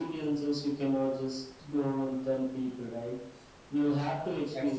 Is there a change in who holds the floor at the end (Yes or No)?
No